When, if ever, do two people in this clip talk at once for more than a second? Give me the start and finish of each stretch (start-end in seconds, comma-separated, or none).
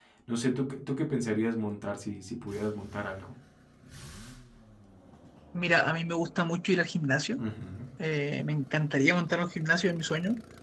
none